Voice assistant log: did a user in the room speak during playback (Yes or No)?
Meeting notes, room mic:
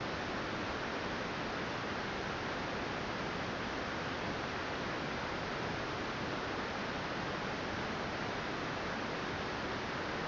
No